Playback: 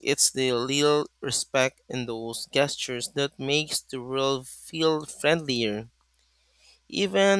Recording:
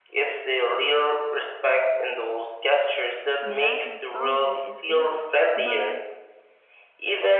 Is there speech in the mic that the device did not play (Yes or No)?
Yes